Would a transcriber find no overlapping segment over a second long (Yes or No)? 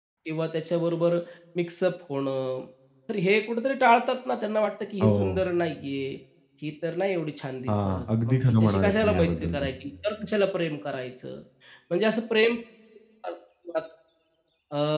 No